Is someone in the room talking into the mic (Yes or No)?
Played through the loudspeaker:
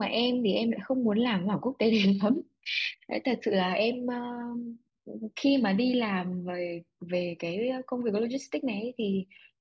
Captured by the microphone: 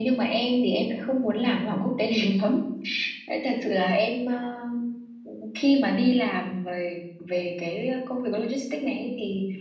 No